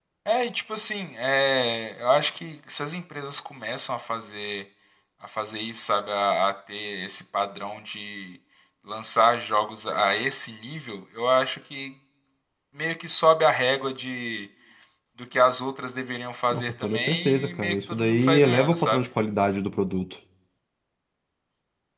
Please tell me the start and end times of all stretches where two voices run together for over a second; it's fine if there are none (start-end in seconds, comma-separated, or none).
16.5-19.1